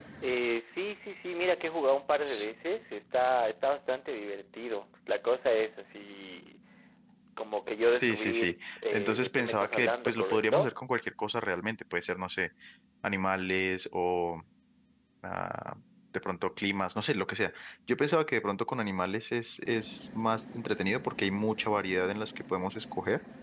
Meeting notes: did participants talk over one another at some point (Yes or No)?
Yes